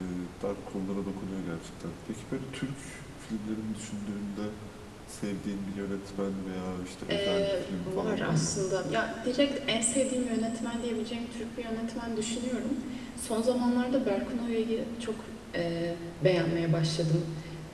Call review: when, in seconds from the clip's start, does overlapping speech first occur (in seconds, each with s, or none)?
7.1 s